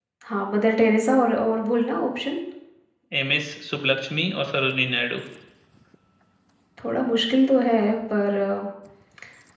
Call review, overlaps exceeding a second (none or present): none